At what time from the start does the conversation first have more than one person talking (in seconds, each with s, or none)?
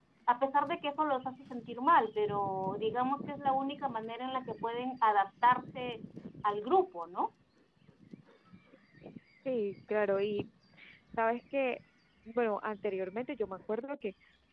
none